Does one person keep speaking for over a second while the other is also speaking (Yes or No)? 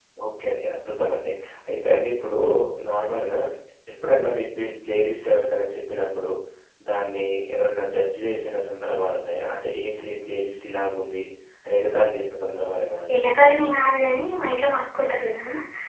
No